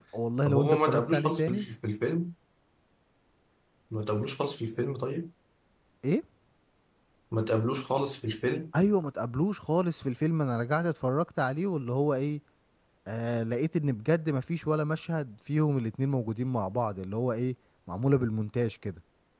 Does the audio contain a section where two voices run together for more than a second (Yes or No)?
Yes